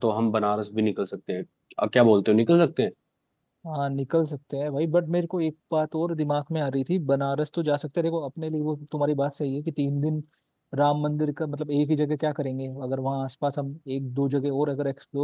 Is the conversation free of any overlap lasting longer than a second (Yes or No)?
Yes